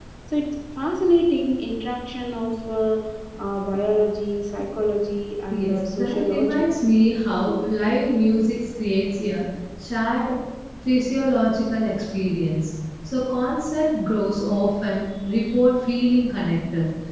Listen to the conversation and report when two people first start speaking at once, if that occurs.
6 s

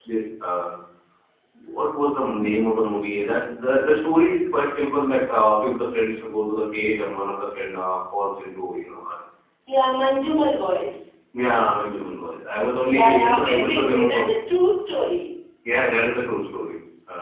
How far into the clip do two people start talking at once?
13 s

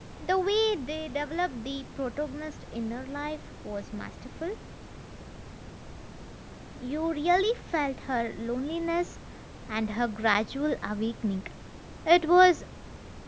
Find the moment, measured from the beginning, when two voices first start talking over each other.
none

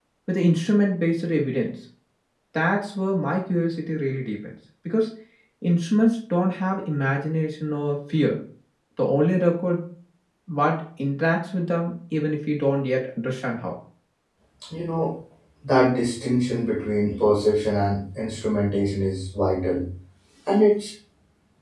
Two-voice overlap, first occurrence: none

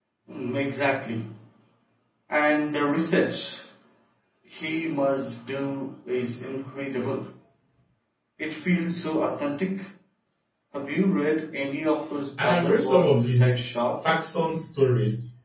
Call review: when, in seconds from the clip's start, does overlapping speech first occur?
12 s

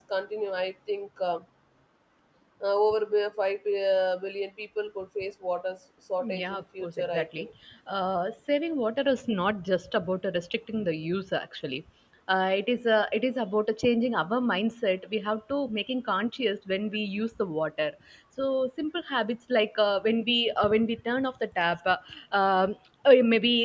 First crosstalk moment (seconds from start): 6 s

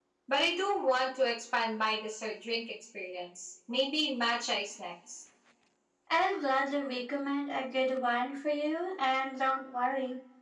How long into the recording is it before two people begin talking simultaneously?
none

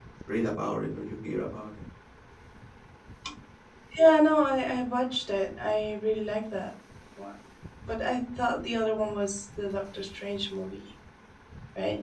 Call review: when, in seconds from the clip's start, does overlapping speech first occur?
none

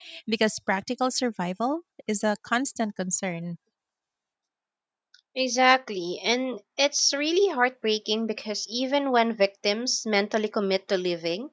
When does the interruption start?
none

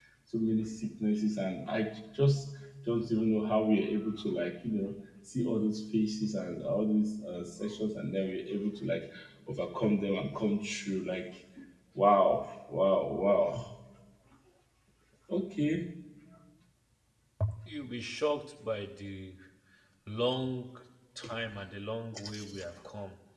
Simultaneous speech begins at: none

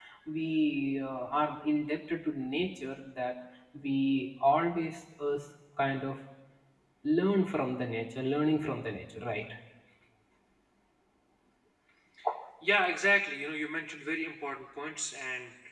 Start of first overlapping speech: none

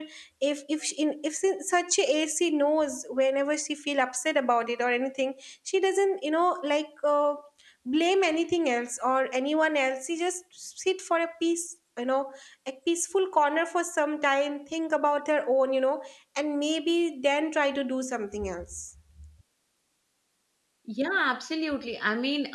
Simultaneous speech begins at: none

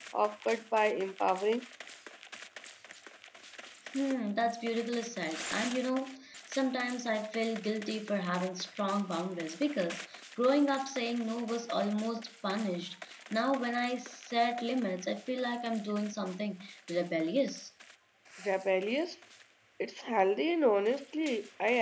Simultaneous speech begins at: none

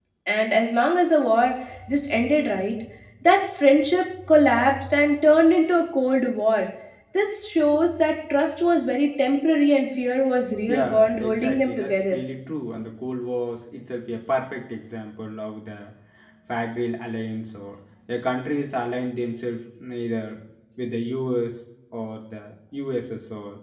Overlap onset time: 11 s

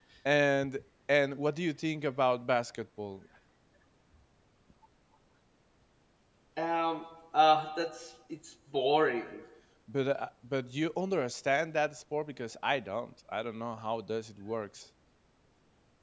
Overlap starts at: none

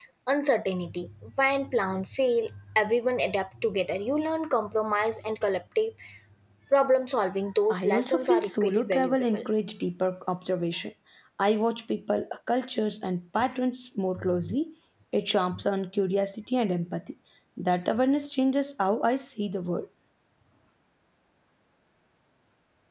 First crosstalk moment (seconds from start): 8 s

